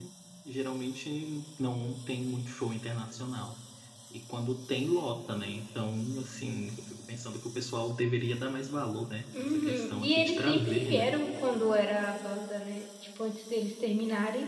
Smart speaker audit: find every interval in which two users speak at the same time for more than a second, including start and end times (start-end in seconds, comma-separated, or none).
9.4-11.1